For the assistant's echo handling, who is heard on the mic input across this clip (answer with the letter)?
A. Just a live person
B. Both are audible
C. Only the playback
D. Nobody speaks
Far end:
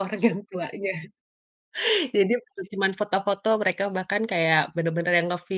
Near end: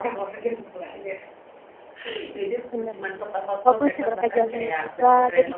B